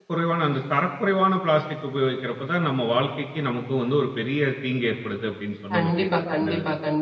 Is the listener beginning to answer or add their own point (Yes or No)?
Yes